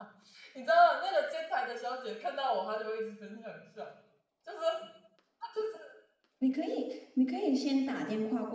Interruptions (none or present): none